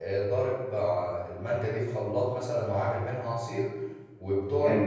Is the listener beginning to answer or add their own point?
No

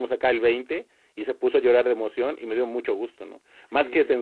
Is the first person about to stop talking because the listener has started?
No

